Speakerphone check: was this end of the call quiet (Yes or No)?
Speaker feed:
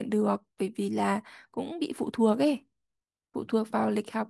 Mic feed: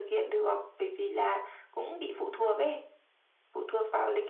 Yes